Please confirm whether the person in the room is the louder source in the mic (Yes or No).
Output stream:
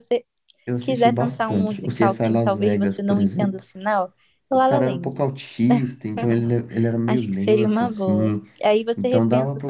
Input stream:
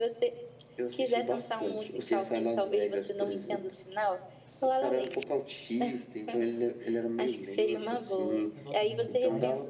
No